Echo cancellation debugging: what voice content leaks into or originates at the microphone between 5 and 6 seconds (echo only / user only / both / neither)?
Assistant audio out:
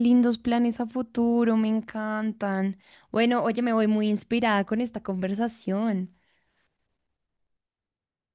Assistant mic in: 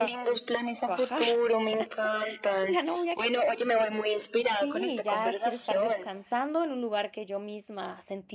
both